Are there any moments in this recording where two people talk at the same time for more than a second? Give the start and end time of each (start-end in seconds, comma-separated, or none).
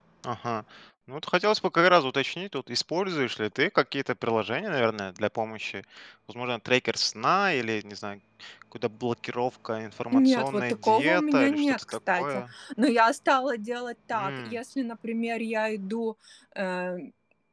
10.1-12.4